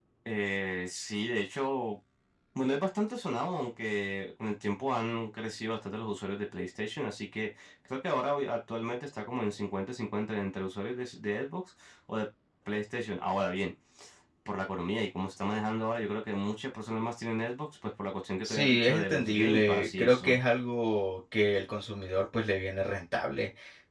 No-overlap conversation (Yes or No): No